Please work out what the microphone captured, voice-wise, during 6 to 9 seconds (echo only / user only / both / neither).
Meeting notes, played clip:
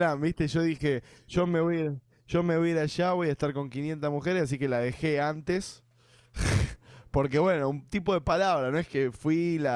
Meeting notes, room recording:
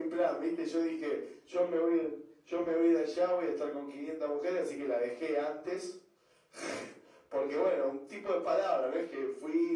echo only